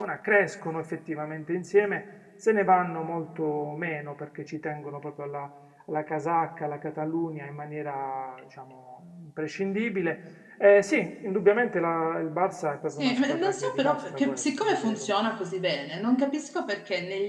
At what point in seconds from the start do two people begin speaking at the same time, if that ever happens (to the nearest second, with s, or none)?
13 s